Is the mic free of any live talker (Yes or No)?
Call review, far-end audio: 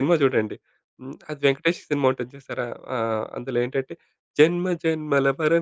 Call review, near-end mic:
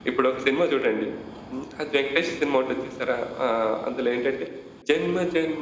Yes